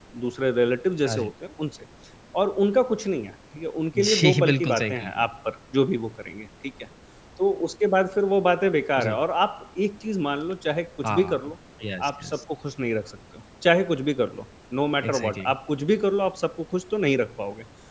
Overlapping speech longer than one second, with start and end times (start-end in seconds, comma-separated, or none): 4.0-5.2